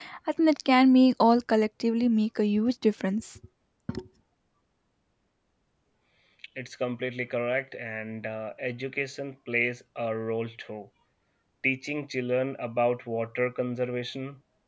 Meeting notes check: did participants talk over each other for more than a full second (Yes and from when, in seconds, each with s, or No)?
No